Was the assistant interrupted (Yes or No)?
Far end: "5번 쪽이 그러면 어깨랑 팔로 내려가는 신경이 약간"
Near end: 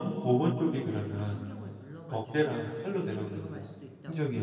Yes